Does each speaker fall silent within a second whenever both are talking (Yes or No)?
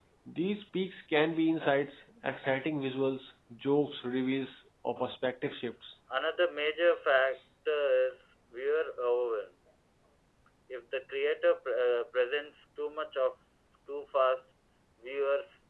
Yes